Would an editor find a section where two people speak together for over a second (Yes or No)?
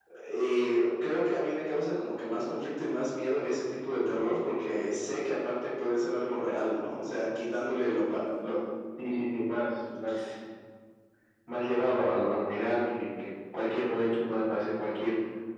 No